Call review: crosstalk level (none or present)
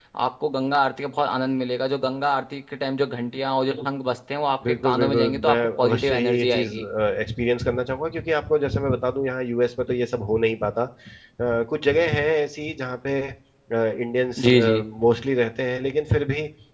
present